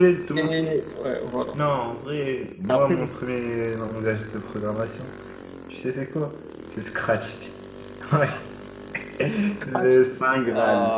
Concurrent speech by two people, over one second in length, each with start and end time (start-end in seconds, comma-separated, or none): none